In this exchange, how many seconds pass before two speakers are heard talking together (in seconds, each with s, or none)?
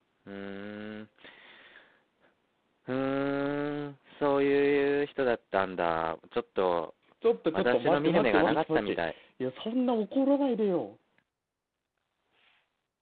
7.5 s